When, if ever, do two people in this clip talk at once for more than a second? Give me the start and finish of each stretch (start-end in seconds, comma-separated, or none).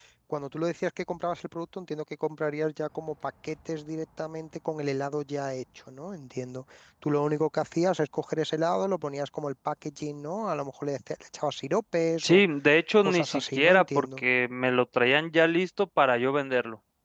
13.0-14.2